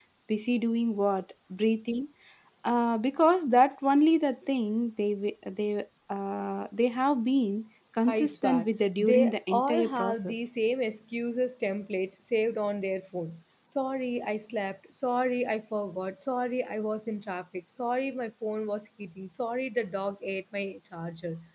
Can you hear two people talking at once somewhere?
Yes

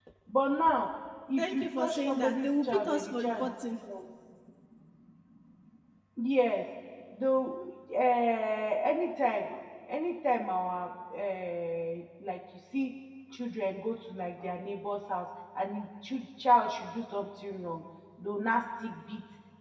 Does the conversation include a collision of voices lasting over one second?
Yes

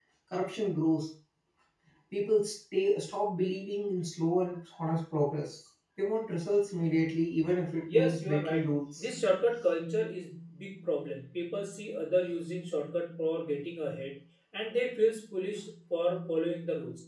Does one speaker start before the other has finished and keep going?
Yes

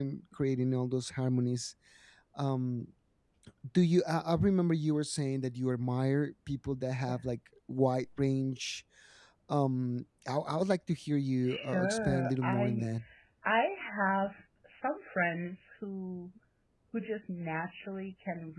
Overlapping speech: Yes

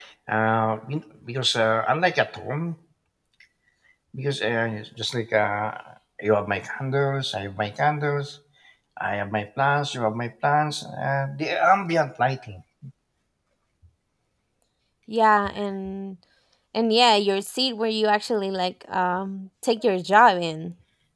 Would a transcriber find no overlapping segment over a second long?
Yes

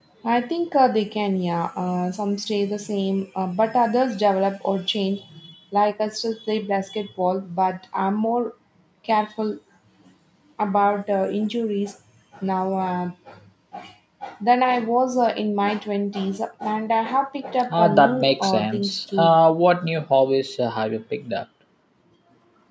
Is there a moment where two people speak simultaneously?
Yes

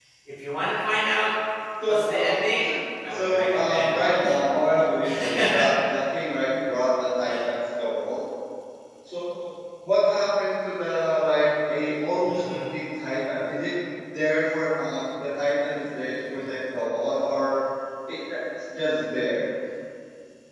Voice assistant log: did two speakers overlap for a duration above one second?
Yes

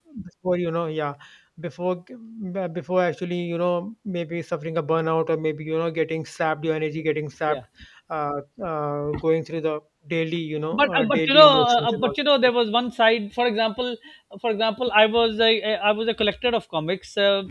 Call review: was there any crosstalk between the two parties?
Yes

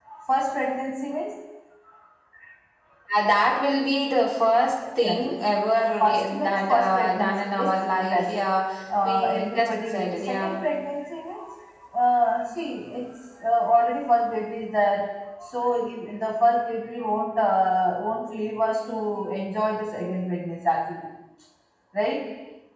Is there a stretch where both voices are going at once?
Yes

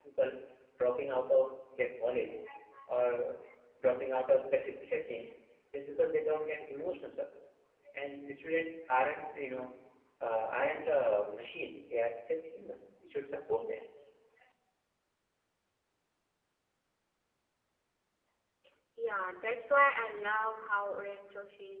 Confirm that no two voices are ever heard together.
Yes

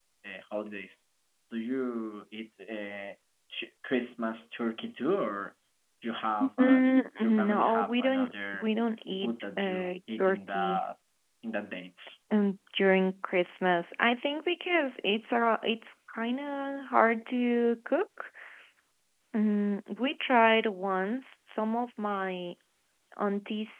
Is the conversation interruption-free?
No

